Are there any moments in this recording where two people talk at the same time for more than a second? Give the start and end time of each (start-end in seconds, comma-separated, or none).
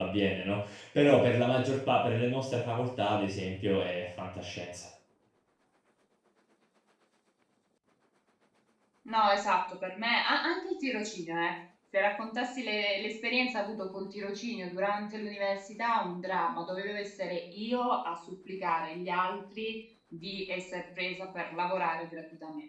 none